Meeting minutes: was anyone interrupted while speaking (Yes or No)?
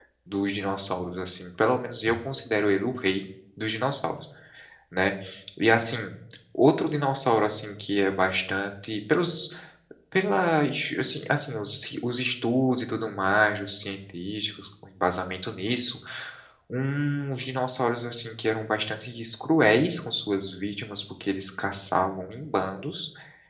No